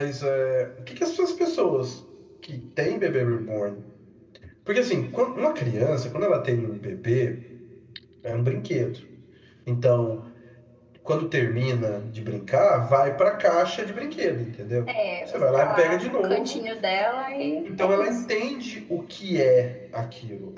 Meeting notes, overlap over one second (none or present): present